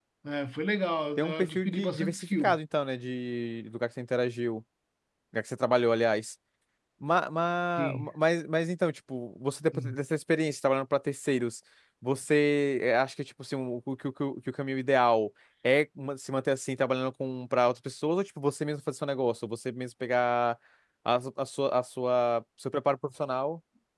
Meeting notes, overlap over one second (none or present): present